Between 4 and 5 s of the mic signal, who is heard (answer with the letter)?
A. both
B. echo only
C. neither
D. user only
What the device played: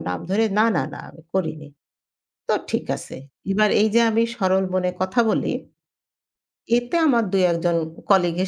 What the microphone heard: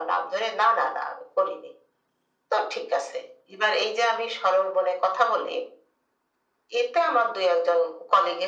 B